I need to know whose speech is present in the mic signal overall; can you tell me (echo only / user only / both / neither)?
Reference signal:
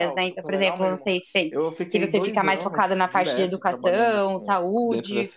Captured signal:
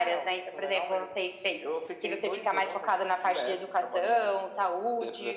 echo only